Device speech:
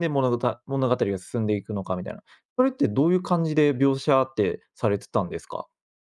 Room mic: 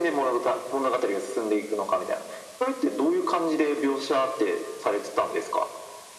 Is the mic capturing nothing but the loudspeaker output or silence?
Yes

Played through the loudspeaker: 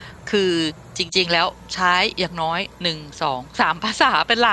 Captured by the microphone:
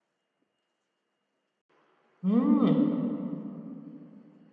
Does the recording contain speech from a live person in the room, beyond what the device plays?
Yes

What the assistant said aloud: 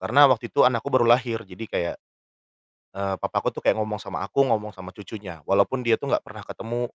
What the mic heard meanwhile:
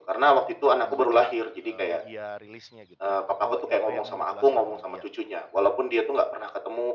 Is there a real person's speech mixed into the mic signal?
Yes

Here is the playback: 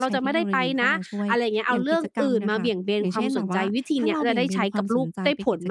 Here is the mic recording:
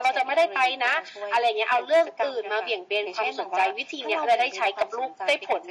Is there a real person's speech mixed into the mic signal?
No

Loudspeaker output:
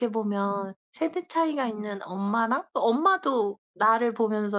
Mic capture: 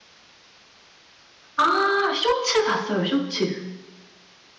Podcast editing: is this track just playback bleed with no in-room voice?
No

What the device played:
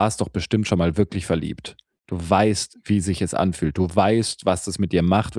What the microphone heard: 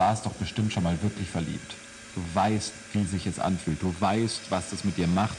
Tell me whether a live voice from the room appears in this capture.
No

